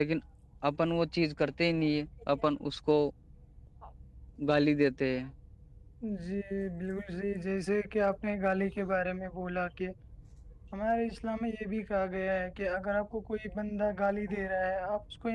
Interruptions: none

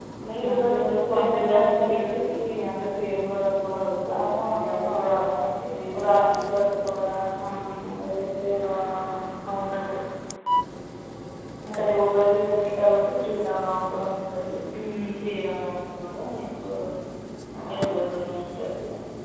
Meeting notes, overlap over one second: present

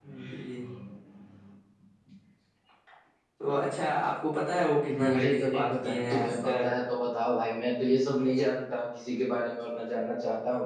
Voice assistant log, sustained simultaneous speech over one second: present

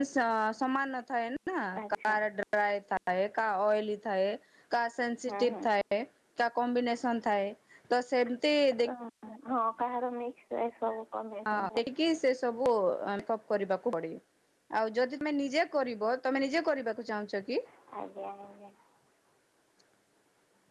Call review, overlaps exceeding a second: none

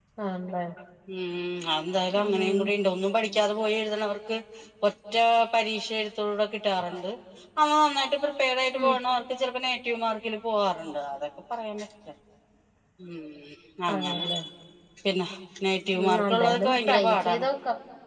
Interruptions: present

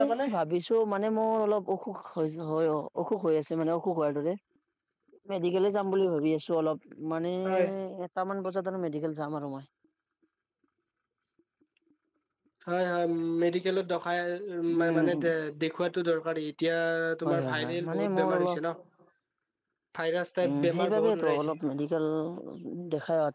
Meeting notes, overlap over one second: present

